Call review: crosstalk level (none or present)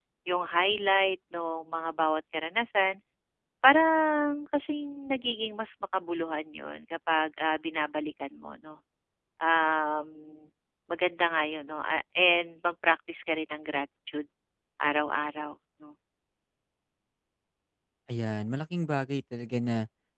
none